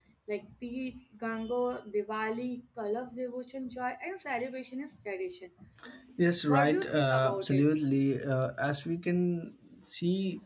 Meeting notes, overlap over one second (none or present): present